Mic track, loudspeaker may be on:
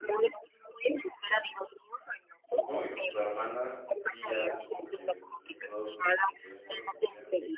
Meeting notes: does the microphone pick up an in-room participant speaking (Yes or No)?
Yes